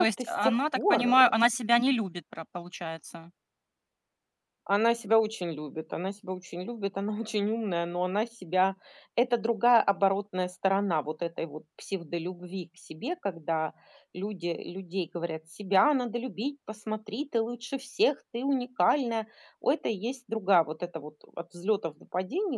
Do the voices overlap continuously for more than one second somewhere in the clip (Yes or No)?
Yes